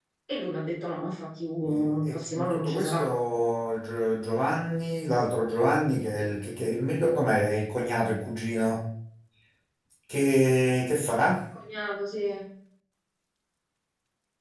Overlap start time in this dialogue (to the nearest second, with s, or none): 2 s